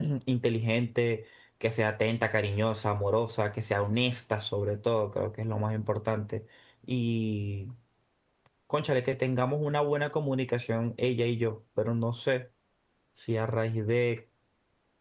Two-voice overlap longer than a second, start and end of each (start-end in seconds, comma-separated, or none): none